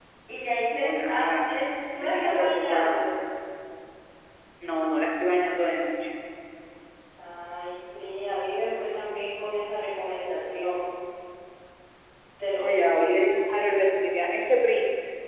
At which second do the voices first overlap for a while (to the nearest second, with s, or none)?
1 s